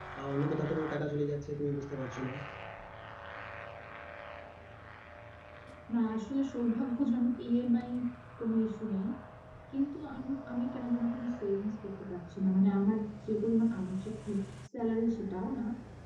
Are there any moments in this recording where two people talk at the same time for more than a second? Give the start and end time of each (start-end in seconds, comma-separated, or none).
none